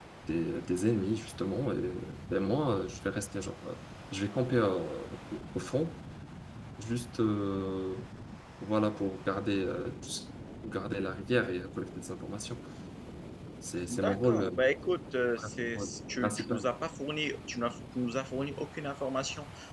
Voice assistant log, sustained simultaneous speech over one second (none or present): present